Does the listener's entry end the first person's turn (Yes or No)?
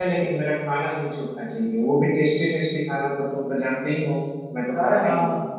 Yes